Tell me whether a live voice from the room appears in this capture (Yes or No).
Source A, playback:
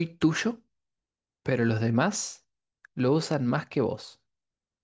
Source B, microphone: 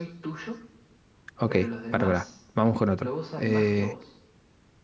Yes